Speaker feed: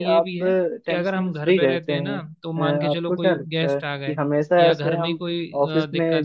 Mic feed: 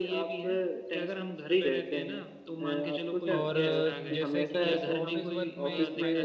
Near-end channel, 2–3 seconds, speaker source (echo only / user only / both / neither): echo only